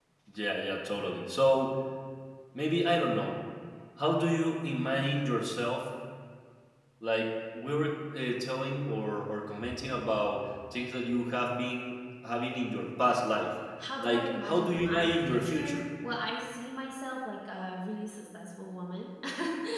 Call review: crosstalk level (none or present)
present